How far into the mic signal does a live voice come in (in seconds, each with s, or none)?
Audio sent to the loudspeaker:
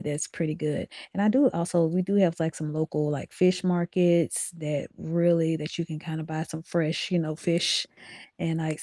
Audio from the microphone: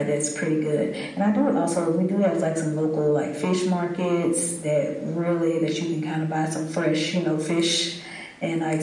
none